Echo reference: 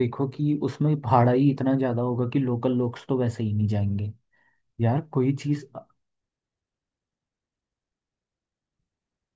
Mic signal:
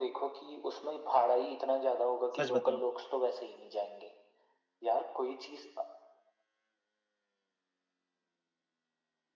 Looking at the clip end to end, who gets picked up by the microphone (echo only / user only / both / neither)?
both